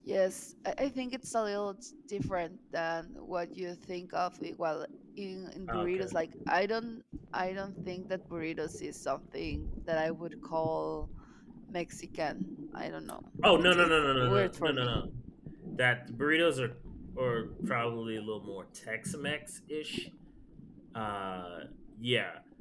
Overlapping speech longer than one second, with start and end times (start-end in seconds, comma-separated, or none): 13.6-15.0